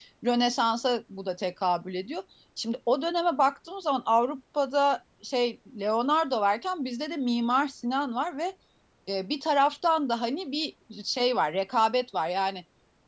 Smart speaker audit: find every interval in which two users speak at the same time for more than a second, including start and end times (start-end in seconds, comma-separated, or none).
none